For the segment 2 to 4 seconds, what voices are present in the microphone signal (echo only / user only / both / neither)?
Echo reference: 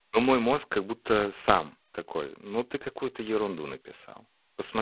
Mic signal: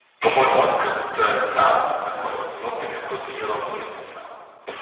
echo only